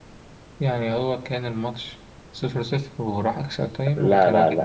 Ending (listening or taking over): taking over